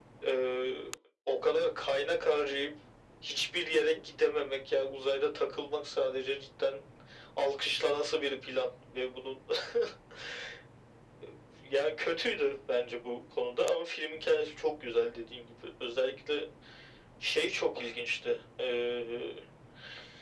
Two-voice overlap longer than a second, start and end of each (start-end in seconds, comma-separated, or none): none